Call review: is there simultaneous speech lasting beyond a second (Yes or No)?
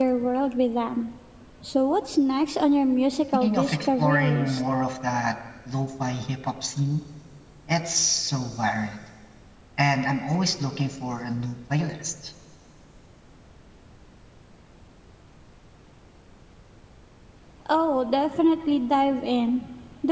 Yes